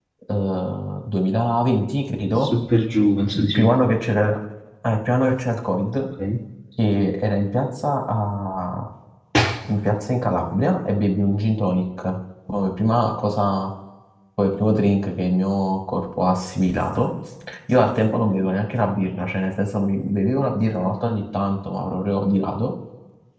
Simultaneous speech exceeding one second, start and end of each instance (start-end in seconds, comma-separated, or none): none